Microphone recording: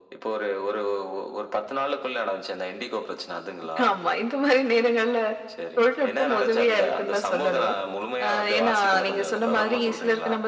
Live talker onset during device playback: none

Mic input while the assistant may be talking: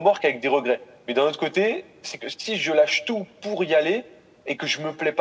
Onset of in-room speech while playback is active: none

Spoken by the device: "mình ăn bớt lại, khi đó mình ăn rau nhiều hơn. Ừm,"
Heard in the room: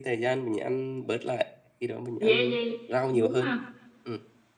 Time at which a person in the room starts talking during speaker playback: 2 s

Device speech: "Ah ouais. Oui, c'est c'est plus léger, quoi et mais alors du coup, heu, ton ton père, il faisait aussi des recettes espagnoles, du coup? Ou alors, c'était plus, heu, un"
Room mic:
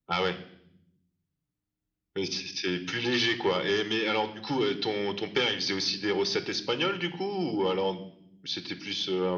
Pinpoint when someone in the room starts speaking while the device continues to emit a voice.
none

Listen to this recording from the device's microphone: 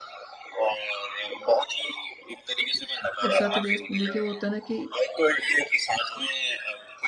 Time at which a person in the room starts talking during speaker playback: 3 s

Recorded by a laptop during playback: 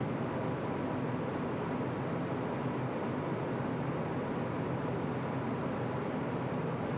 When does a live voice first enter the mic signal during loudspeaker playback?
none

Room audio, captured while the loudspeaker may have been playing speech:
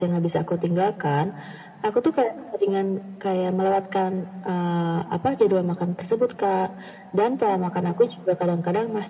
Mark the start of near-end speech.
none

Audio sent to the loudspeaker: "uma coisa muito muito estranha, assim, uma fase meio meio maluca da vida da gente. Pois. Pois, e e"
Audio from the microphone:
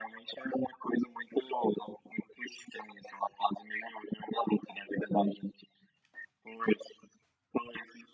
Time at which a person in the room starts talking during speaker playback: none

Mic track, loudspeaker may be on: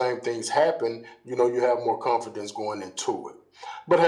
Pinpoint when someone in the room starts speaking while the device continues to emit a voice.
none

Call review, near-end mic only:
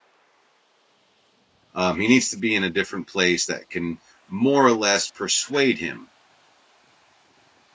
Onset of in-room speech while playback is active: 2 s

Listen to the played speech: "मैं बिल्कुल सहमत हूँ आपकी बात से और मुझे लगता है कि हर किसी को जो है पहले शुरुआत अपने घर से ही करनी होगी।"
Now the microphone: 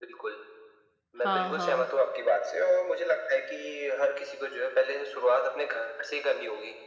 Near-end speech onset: 1 s

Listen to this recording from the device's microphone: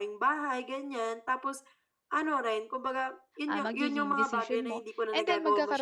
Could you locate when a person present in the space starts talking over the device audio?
3 s

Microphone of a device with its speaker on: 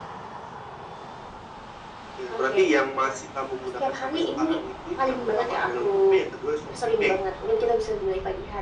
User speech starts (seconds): none

